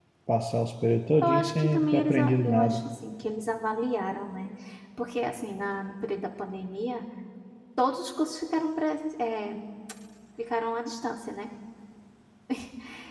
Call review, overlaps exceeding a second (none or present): present